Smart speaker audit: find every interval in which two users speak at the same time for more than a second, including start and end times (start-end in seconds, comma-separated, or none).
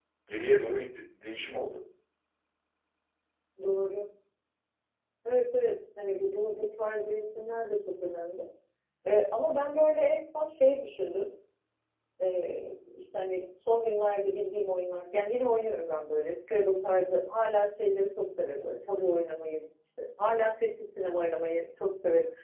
none